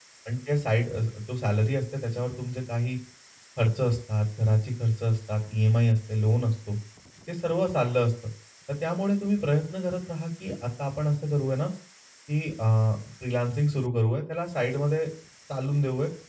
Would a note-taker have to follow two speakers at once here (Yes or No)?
No